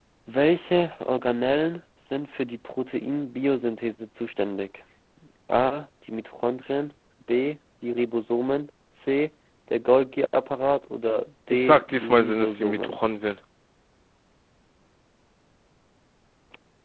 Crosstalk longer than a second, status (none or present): present